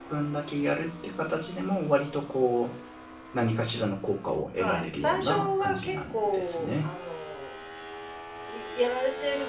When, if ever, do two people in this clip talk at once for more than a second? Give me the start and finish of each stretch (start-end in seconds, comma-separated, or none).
4.6-6.9